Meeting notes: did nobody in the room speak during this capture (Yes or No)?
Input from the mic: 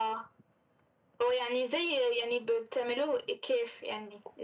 Yes